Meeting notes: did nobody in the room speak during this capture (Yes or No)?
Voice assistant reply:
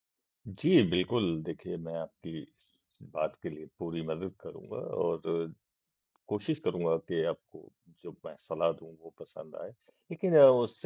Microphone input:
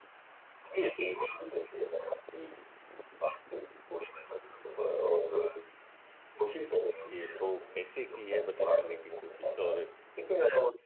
No